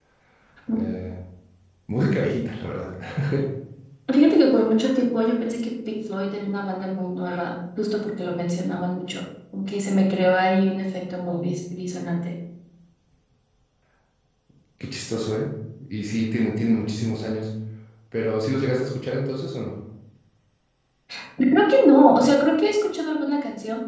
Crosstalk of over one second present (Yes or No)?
No